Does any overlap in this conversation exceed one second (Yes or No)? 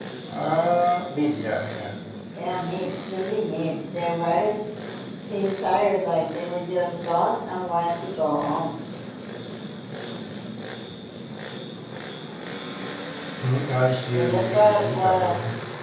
Yes